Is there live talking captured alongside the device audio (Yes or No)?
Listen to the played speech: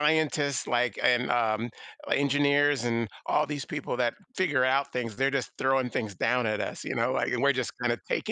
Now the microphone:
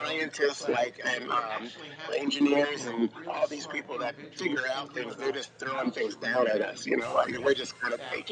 Yes